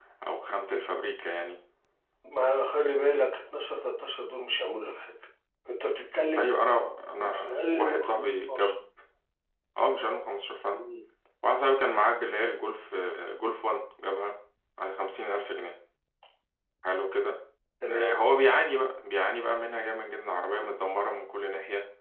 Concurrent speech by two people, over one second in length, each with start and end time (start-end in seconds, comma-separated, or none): 7.2-8.7